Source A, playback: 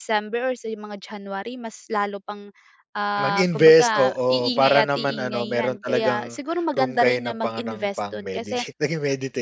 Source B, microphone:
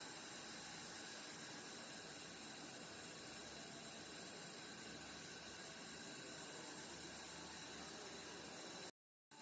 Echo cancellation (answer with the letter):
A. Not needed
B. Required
A